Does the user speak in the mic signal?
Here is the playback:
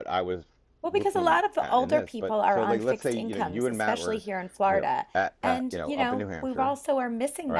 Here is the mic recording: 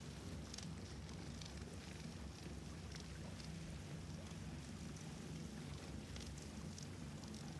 No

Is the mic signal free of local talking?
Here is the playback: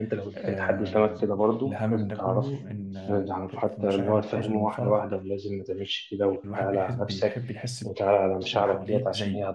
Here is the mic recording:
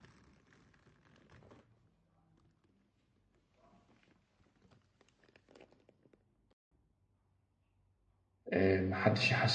No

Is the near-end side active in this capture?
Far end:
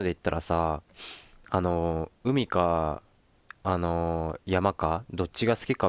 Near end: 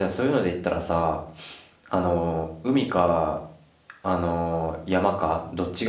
No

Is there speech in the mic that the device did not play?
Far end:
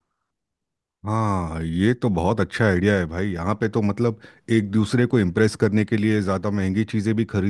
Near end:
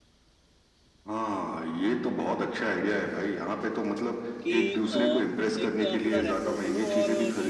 Yes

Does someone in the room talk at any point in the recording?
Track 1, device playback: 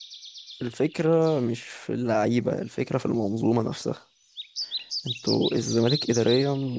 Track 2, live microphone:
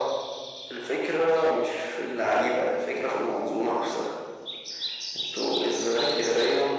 No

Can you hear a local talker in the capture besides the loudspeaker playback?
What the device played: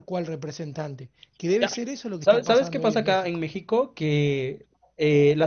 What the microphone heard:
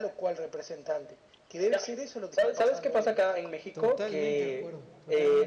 Yes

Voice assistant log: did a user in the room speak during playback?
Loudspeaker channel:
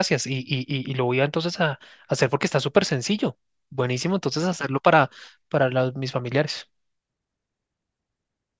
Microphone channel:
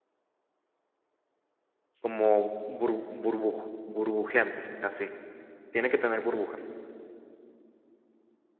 Yes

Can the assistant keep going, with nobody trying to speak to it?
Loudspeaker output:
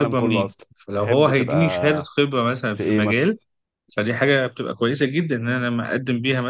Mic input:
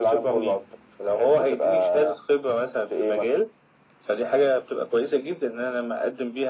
Yes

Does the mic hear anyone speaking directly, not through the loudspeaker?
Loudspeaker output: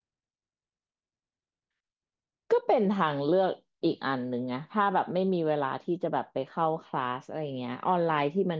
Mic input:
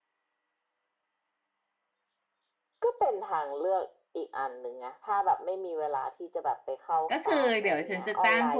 Yes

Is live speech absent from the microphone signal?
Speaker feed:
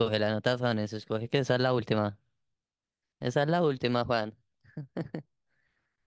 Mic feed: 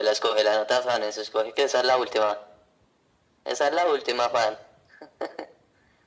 Yes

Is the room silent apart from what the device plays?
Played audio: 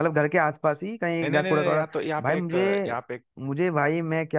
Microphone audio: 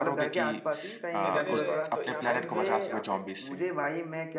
No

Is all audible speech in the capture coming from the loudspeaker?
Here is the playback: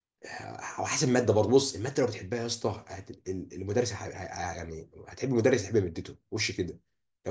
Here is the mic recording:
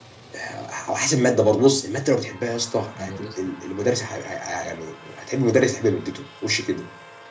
No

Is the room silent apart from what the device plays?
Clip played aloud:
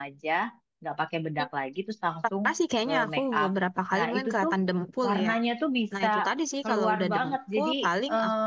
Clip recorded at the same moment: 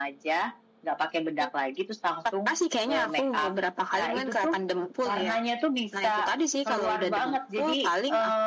Yes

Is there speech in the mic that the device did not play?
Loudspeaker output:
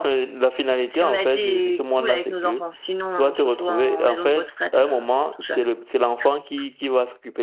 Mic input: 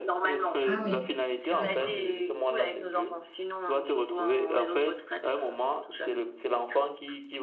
Yes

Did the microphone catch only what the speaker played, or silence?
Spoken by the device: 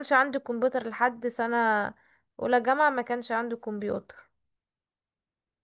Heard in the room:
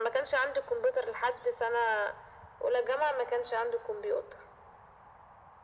Yes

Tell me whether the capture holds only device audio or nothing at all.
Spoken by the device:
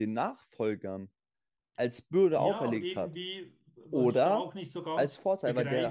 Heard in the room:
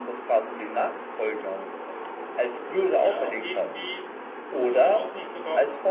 Yes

